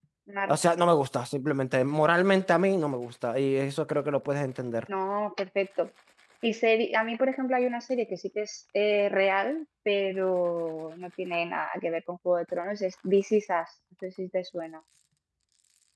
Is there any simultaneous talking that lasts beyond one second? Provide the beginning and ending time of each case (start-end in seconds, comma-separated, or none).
none